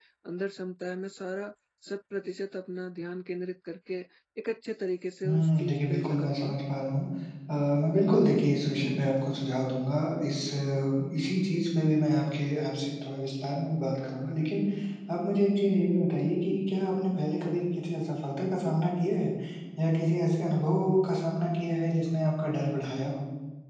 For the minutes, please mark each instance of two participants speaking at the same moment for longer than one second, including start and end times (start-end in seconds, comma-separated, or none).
5.3-6.6